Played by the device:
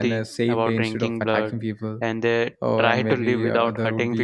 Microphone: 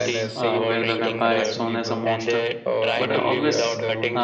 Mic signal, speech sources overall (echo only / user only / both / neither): both